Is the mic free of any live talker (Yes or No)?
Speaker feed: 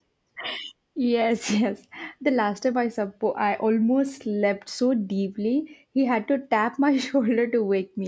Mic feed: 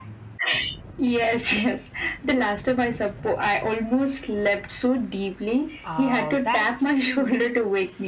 No